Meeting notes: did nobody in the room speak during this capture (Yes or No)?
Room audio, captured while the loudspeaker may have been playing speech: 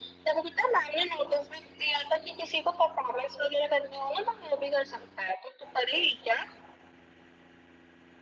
Yes